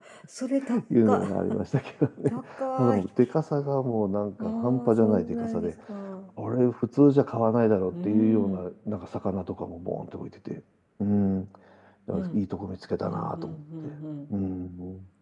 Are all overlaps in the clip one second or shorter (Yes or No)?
No